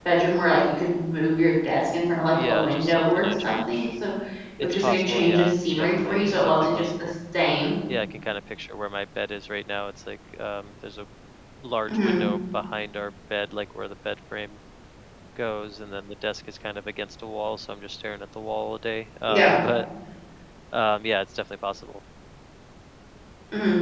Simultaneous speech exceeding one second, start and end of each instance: 2.3-3.9, 4.6-7.1

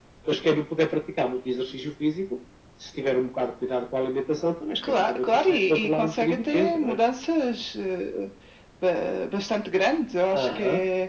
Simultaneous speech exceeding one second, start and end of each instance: 4.9-7.0

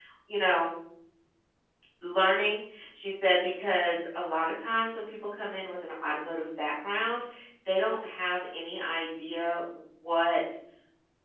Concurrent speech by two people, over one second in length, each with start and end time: none

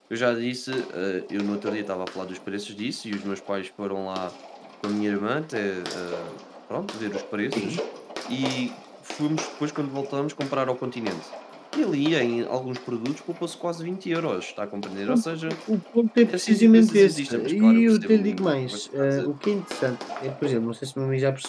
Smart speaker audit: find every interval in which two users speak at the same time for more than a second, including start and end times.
16.3-19.3

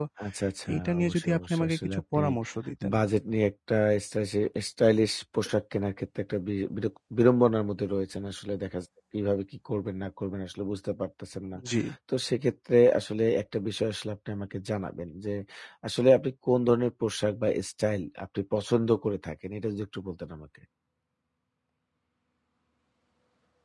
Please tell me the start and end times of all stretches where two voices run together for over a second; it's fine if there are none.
0.7-2.2

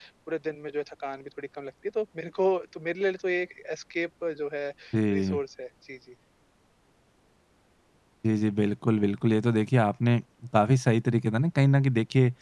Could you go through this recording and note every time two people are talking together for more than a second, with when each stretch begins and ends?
none

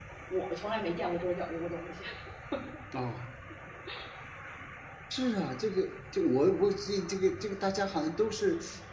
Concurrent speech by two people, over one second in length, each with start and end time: none

